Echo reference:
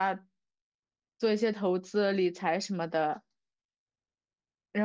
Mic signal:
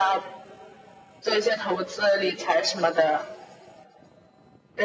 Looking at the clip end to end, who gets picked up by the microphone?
echo only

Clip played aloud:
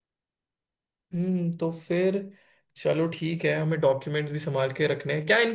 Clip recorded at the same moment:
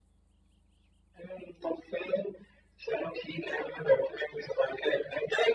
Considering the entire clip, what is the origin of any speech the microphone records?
echo only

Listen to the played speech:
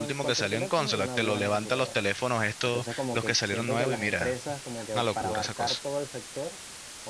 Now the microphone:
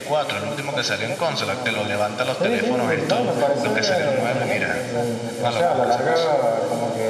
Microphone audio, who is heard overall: both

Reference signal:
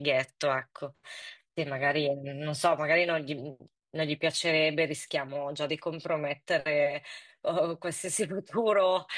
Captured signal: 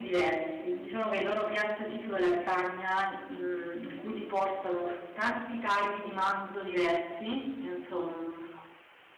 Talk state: user only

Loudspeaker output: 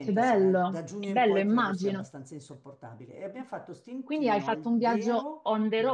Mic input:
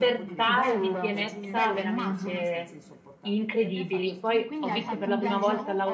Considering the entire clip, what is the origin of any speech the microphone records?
both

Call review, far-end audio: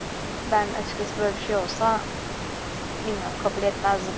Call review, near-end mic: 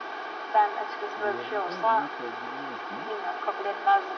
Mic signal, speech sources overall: both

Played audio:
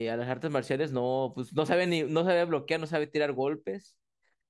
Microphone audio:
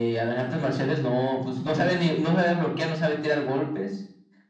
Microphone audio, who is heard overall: echo only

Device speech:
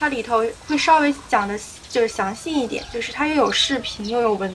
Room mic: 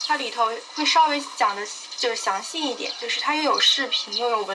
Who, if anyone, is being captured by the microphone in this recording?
echo only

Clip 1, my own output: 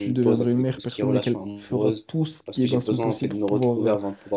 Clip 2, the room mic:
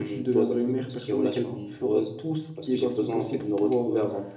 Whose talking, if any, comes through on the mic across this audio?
echo only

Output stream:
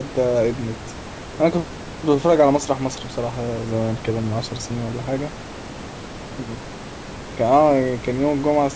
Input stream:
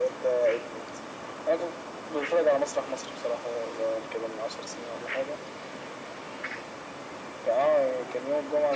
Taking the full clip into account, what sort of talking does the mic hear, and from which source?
echo only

